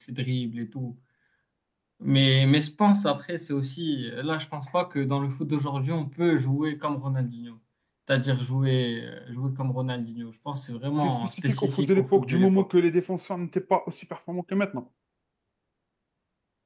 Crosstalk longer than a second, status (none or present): present